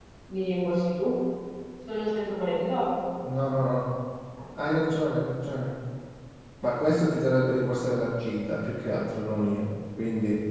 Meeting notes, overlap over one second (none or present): none